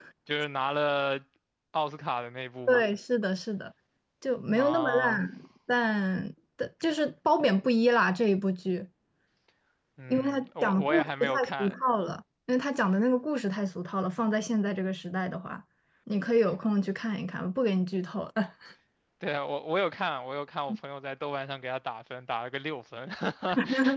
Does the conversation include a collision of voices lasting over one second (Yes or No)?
Yes